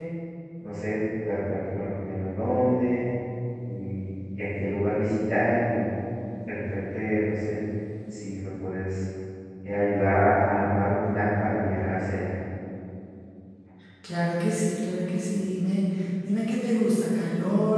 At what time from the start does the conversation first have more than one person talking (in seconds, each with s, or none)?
none